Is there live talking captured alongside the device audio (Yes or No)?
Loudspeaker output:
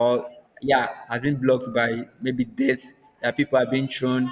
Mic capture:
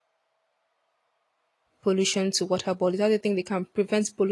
Yes